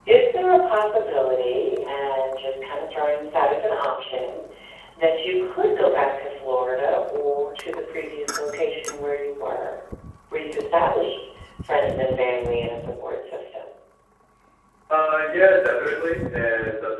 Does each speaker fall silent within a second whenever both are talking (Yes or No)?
Yes